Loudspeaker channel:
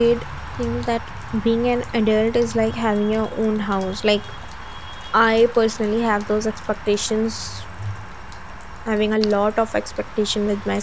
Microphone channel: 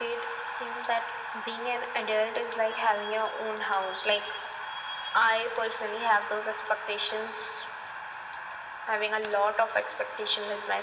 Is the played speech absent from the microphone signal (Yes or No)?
No